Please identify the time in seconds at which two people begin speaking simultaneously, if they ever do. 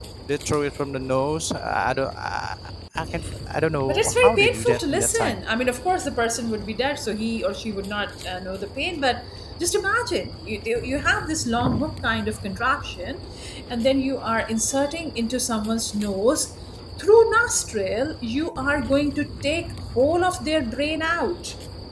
3.9 s

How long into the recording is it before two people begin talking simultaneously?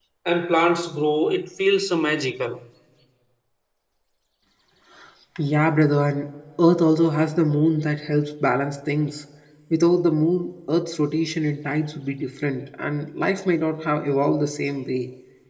none

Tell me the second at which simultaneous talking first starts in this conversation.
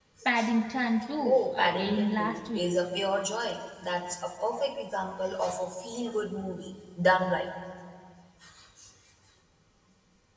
1.2 s

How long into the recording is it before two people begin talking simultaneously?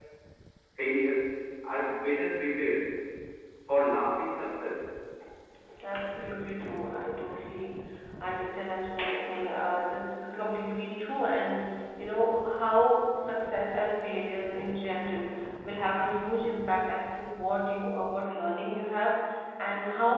none

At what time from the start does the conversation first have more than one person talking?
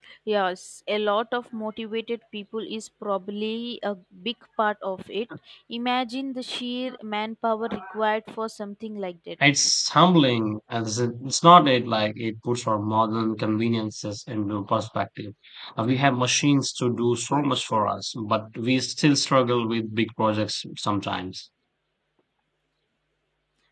none

